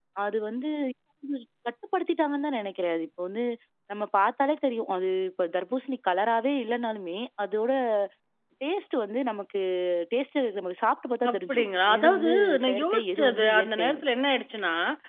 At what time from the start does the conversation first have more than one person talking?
11.2 s

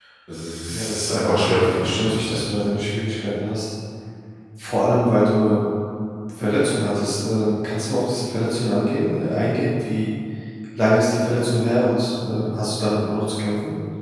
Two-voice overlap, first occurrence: 0.7 s

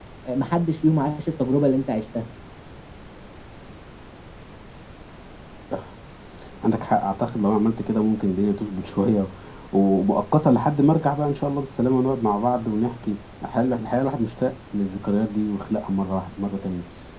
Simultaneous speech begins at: none

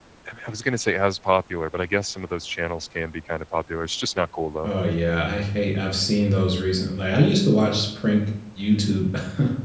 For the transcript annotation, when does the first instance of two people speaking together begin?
none

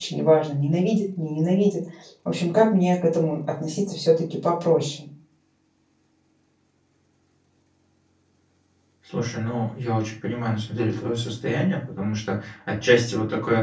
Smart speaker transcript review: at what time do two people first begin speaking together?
none

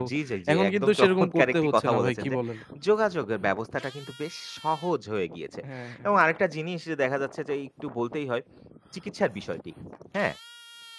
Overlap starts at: 0.5 s

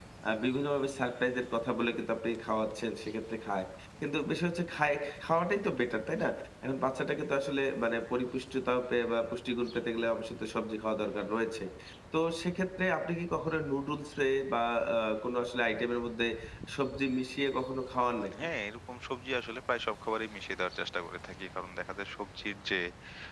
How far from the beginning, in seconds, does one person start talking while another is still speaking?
none

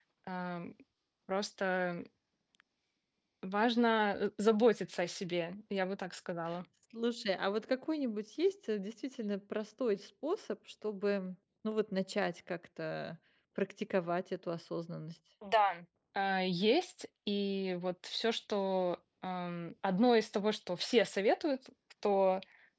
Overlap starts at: none

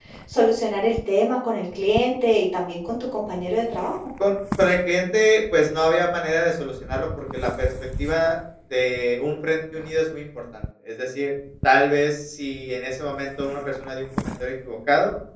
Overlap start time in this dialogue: none

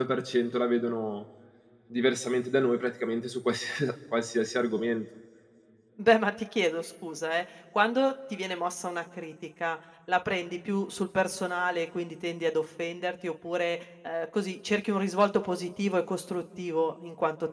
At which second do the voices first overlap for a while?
none

